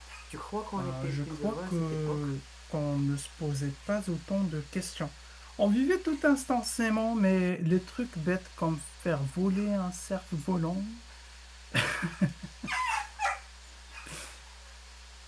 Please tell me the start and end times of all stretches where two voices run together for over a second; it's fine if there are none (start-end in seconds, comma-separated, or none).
0.8-2.3